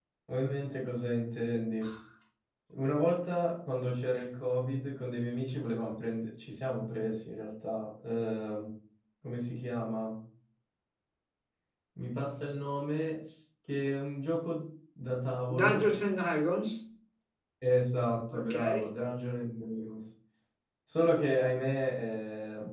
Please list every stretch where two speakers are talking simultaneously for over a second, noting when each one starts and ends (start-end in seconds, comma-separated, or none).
none